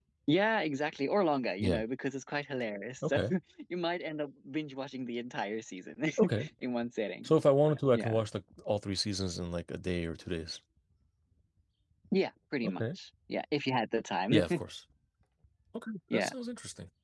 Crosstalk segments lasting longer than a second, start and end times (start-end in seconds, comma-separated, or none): none